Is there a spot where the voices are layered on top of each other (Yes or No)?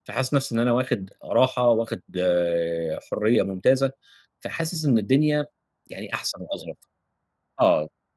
No